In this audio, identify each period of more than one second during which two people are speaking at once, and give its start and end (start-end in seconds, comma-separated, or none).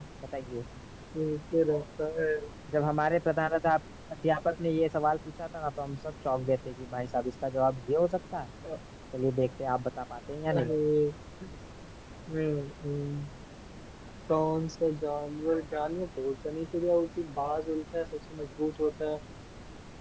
none